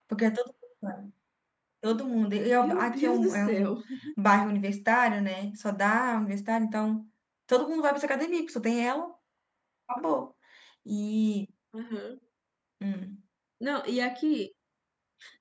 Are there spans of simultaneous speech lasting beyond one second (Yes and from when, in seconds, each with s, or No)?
Yes, from 2.5 s